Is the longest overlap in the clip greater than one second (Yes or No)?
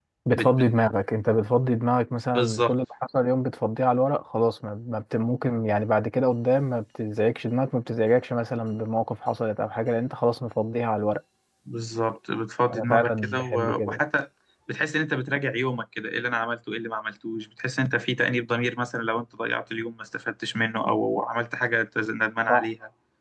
Yes